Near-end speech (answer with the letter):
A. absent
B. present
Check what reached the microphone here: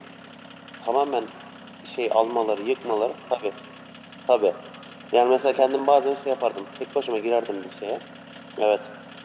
A